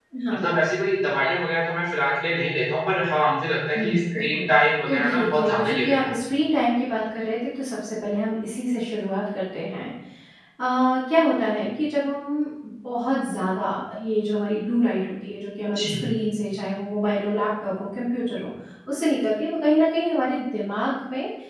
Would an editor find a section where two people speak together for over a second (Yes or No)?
Yes